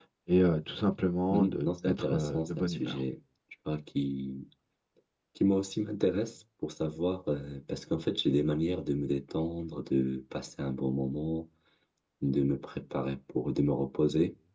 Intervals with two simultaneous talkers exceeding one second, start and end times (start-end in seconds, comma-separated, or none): 1.3-3.0